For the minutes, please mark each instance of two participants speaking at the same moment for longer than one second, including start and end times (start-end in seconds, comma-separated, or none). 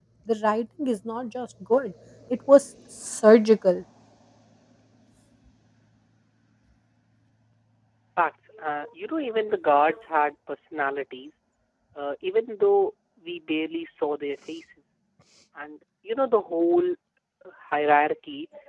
none